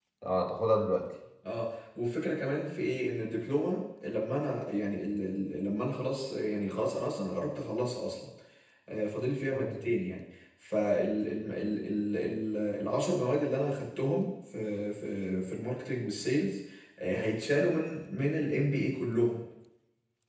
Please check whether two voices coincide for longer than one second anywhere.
No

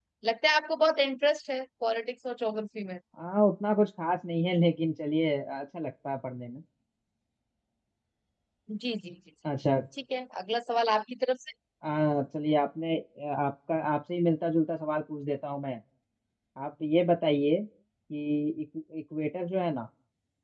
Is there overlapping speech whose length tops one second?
No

